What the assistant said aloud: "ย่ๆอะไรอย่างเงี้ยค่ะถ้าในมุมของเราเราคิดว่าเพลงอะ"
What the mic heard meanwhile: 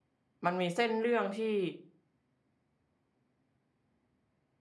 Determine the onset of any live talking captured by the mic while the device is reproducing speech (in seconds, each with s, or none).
0.5 s